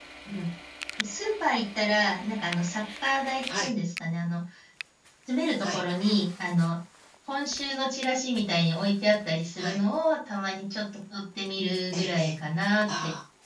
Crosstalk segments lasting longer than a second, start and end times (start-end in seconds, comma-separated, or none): none